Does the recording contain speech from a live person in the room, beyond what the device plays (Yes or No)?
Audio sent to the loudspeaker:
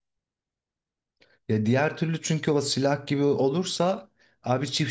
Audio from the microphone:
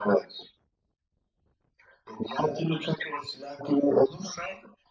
No